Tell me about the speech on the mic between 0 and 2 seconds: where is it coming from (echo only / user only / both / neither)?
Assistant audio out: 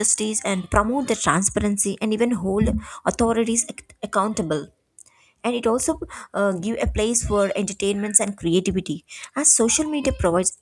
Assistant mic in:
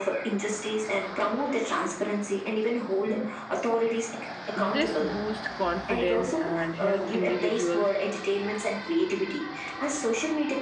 echo only